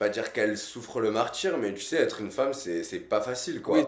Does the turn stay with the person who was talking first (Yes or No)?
No